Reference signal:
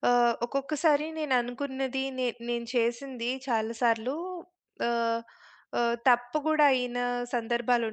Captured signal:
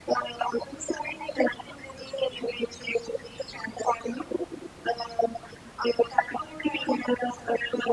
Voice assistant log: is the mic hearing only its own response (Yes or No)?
Yes